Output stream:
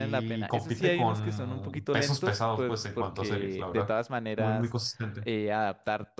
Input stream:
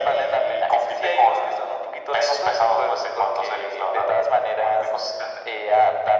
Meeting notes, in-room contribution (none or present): none